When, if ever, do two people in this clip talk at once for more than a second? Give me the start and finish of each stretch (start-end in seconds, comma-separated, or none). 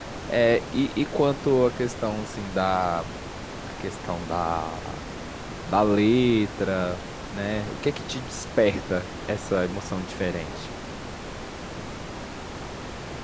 none